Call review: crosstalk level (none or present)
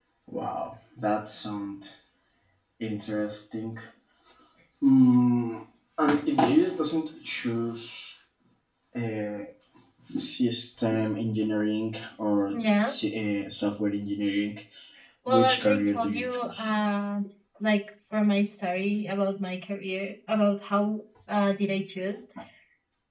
present